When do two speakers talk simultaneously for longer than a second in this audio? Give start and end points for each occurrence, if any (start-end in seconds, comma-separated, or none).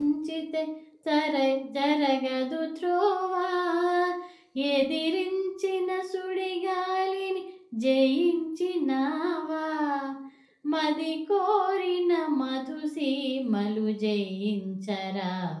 none